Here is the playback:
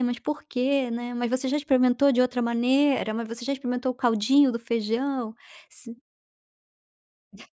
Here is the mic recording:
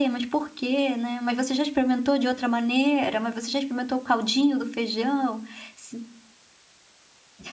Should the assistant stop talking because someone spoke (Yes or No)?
No